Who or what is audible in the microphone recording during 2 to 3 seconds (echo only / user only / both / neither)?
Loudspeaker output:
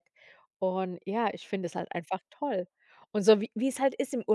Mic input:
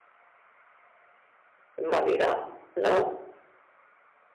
user only